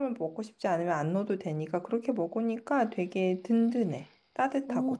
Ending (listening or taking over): taking over